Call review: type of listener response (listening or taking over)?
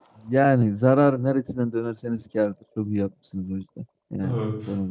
taking over